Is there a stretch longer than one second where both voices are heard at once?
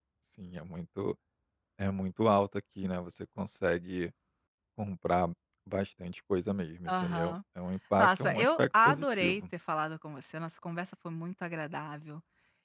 Yes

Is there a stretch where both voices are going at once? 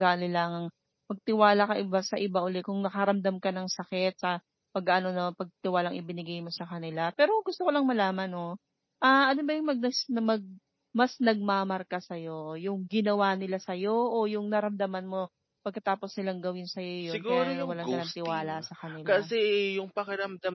Yes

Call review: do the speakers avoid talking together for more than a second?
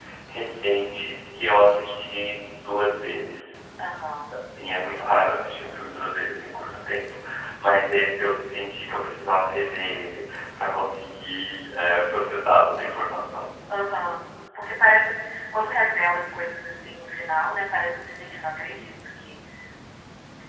Yes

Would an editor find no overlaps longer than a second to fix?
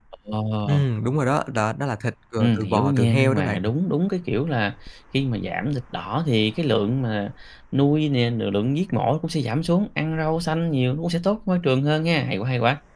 No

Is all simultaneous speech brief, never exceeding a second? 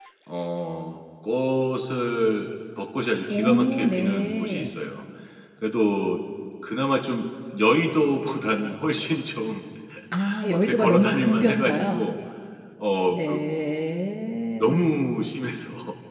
No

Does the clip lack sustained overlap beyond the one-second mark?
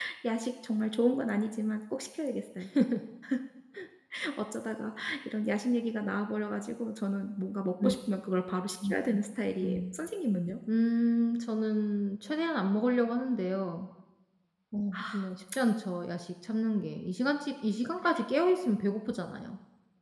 Yes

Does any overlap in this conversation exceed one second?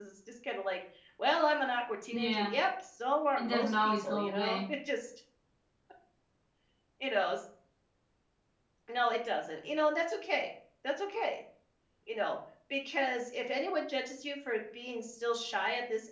Yes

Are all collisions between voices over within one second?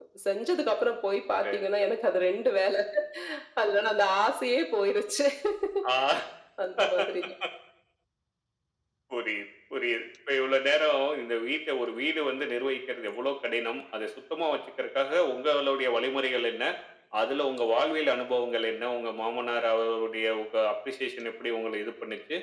Yes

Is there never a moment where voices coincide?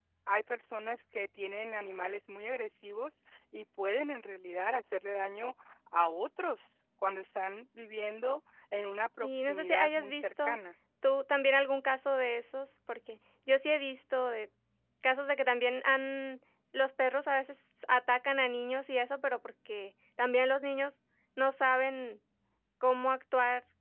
No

